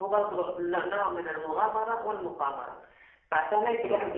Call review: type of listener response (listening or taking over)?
listening